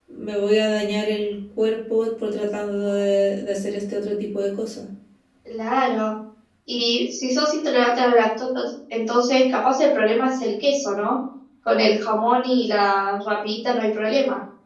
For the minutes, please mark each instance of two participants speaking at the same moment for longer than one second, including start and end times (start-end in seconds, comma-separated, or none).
none